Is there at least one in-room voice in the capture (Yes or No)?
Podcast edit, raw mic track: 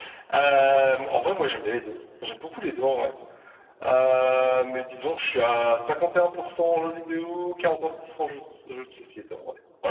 No